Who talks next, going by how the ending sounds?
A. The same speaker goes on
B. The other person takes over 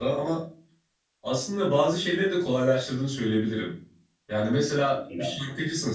A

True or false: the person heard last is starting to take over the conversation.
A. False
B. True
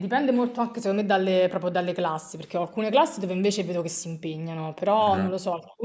A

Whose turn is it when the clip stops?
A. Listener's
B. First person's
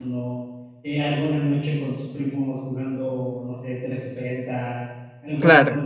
B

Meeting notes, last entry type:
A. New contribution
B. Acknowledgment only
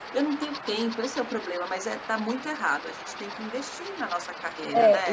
A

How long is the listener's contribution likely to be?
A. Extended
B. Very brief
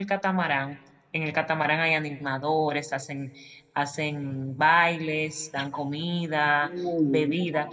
B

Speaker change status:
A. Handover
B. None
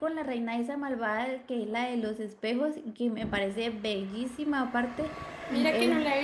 A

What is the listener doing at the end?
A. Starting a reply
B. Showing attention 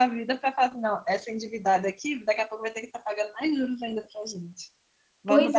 A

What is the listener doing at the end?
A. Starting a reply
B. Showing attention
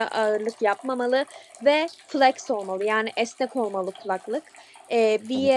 B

